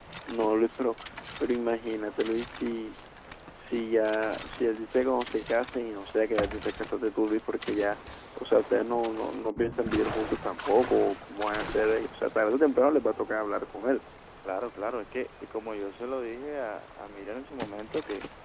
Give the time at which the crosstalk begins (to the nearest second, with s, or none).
none